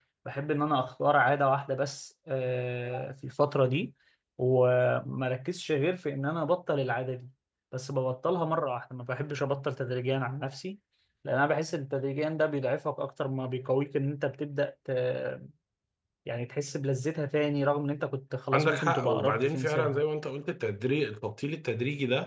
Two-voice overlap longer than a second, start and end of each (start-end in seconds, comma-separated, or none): 18.5-20.0